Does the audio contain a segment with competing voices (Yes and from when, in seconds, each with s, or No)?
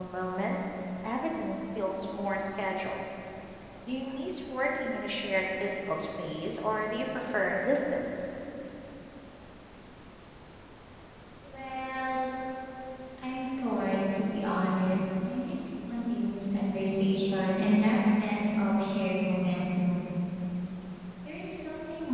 No